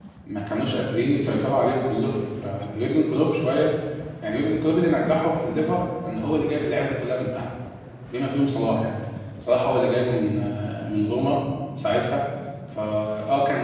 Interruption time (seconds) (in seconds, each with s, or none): none